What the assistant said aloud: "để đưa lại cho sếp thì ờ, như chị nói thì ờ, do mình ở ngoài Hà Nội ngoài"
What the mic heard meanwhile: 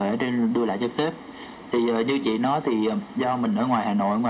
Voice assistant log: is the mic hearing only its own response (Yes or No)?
Yes